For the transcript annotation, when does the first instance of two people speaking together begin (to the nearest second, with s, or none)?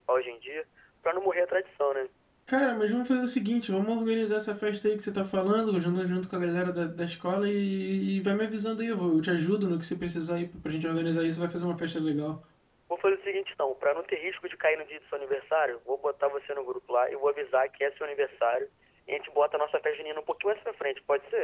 none